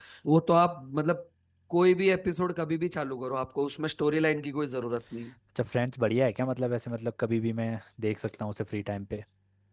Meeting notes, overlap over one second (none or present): none